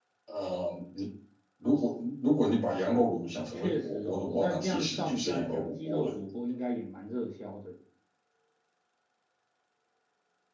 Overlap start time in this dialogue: 3.3 s

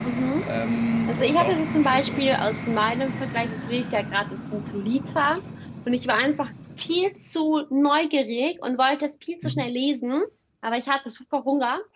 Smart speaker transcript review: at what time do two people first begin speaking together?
1.1 s

